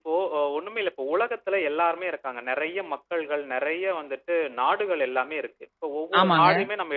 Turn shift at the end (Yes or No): No